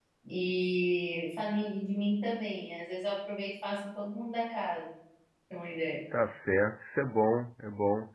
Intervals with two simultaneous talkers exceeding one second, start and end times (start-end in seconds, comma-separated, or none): none